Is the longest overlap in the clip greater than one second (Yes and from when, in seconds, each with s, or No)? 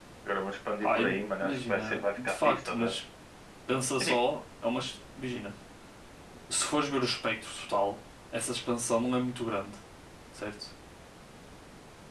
Yes, from 0.8 s